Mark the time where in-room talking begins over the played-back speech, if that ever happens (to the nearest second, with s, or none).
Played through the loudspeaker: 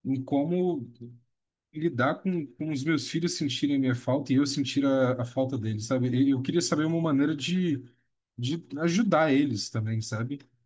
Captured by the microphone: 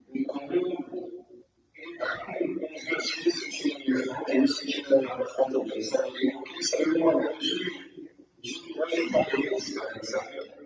none